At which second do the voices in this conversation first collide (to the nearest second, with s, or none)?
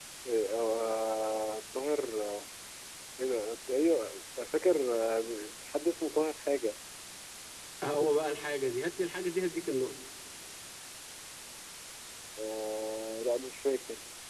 none